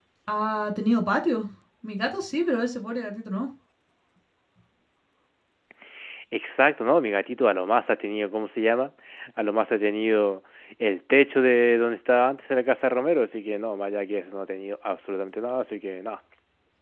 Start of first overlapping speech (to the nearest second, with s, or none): none